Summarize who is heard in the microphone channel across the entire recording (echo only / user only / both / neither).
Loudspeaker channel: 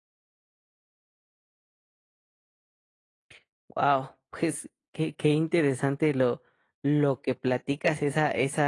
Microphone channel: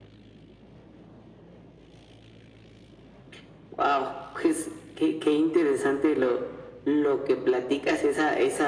echo only